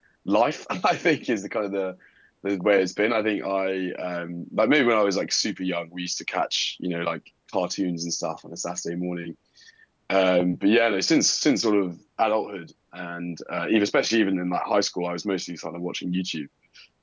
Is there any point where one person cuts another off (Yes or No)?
No